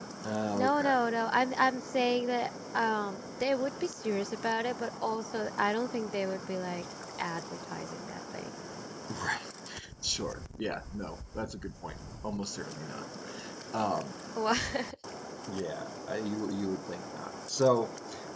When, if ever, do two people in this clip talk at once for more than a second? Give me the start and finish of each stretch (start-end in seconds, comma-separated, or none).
none